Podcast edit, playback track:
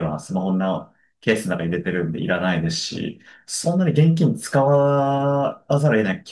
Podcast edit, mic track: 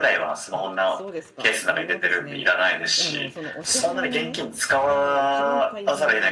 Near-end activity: present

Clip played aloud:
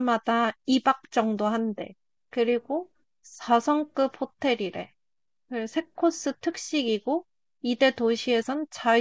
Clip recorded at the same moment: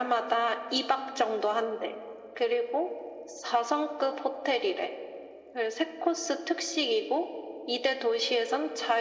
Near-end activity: none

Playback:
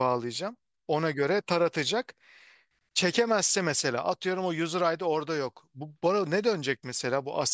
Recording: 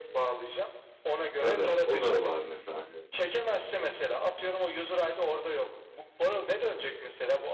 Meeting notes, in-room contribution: present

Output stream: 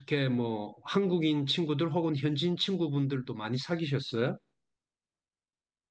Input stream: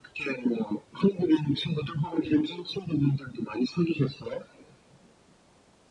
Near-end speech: none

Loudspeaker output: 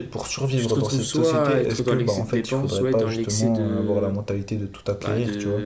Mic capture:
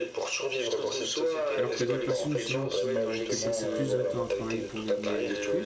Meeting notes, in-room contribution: present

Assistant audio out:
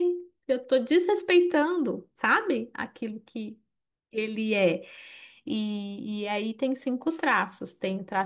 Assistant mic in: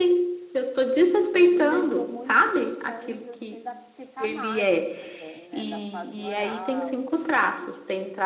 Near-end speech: present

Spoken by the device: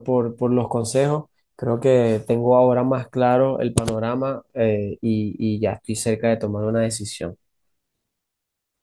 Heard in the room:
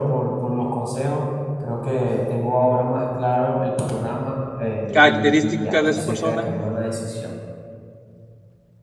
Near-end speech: present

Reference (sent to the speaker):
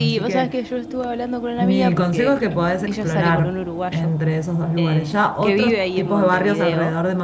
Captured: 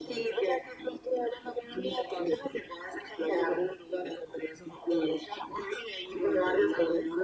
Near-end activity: none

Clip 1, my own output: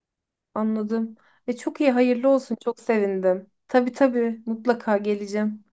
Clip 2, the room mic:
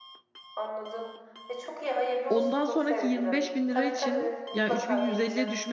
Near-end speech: present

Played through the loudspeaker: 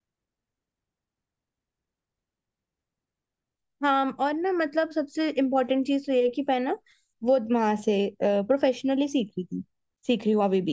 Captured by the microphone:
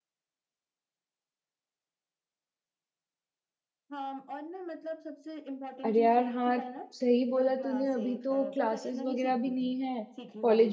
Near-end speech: present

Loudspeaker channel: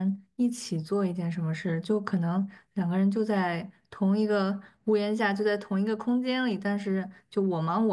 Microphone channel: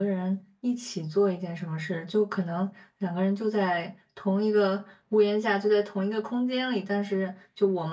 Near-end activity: none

